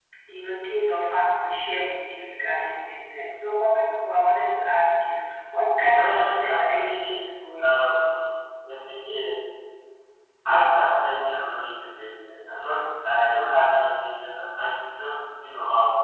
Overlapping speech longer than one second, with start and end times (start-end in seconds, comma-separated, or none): 5.8-7.2